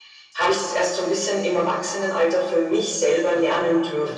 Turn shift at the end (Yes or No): Yes